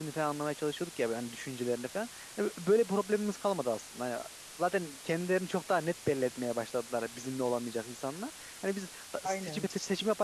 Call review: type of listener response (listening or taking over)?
listening